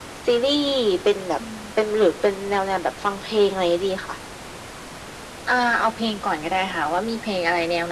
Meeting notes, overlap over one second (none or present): none